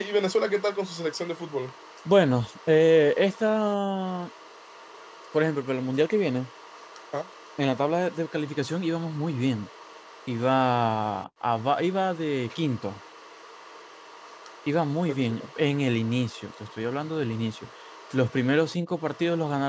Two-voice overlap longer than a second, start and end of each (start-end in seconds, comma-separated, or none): none